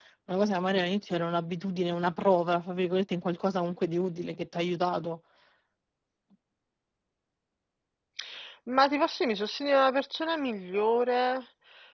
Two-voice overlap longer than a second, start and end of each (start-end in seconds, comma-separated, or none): none